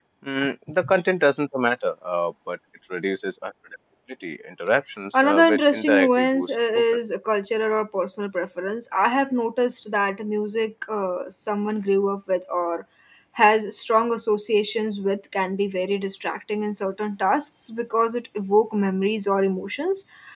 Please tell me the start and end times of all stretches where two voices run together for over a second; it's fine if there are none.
5.1-6.8

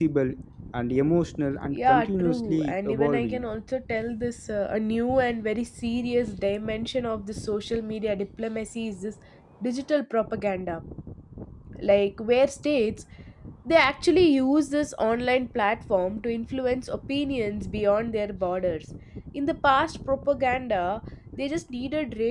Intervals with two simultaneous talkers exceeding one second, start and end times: 1.7-3.4

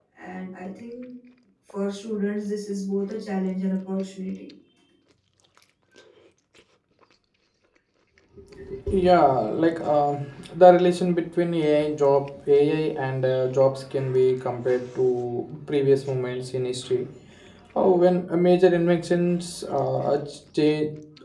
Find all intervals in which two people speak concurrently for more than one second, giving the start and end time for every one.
none

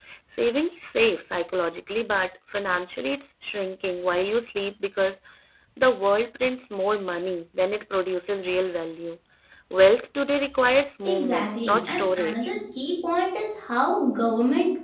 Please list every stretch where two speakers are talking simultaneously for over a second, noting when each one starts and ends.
11.0-12.5

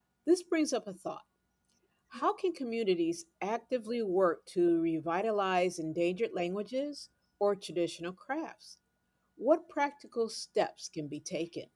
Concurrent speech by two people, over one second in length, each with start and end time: none

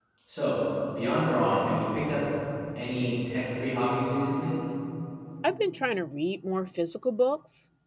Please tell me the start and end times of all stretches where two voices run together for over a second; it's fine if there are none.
none

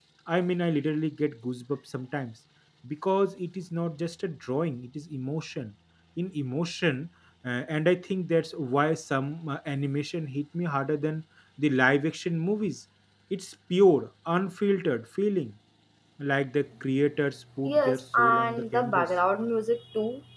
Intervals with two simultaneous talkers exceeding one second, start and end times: 17.7-19.1

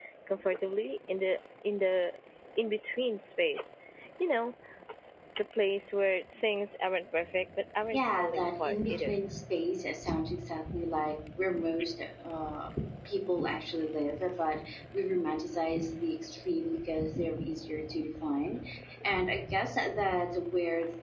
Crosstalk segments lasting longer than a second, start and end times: 7.9-9.2

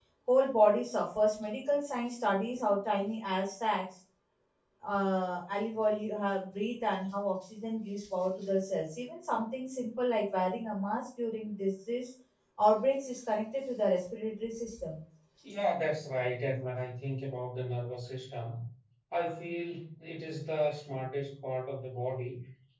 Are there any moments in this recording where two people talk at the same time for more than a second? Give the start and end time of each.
none

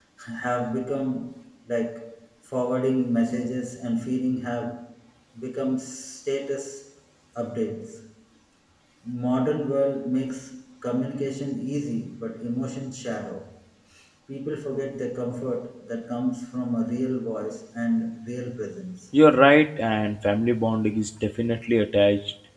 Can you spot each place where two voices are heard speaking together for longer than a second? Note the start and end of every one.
none

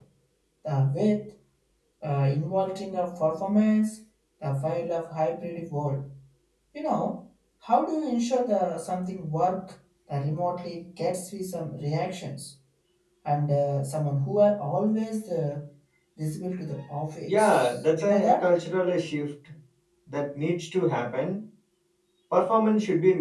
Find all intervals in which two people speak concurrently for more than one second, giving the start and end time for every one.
17.3-18.5

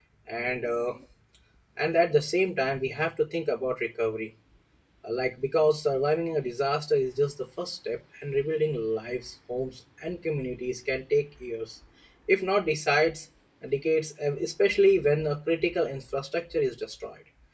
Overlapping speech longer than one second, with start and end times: none

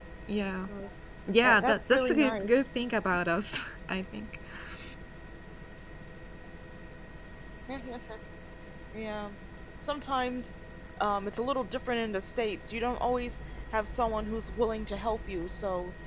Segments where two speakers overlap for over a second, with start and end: 1.4-2.6

